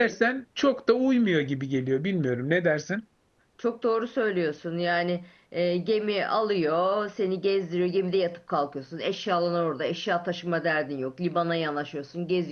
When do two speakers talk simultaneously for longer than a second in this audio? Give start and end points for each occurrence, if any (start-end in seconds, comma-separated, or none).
none